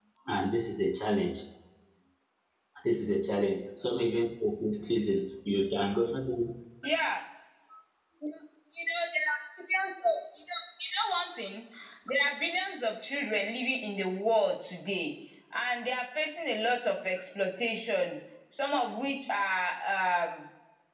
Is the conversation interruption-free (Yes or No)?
Yes